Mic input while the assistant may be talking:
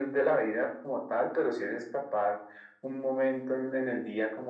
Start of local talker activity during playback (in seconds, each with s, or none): none